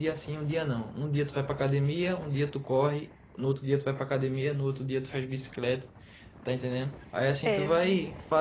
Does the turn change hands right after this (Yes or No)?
No